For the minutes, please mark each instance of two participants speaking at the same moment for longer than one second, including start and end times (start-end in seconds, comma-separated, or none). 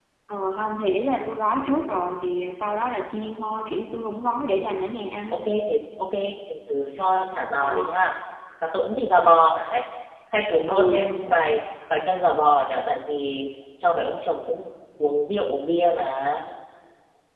none